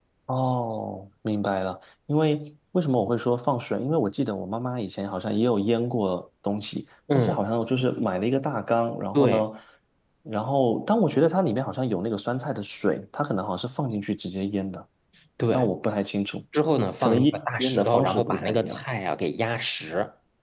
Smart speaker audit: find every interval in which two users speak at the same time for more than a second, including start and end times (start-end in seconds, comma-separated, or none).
17.0-18.8